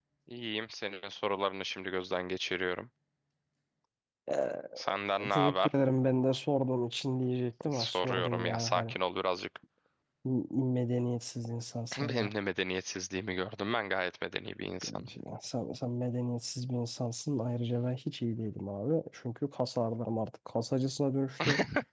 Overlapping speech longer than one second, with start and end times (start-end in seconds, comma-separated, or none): 7.7-9.0